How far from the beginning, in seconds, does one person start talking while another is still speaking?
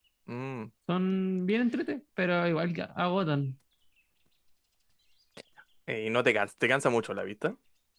none

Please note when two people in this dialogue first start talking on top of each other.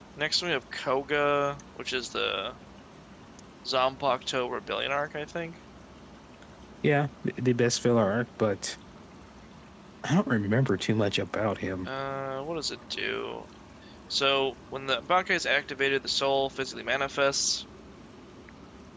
none

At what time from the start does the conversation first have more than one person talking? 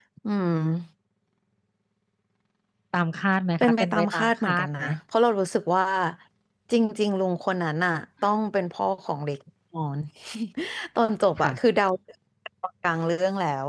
3.6 s

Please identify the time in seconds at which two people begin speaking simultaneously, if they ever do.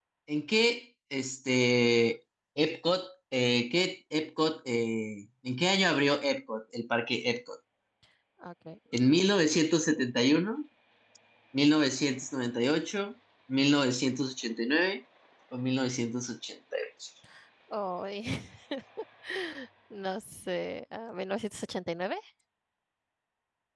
none

